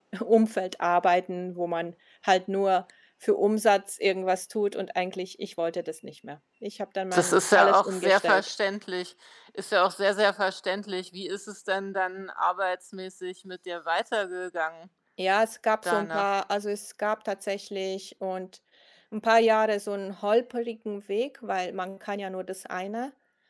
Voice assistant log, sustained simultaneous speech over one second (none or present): present